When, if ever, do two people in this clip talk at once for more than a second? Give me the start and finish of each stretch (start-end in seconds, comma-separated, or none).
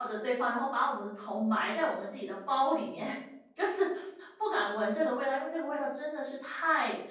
none